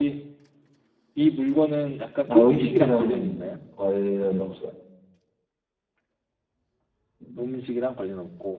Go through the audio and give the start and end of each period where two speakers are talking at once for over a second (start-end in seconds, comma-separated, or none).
2.3-3.5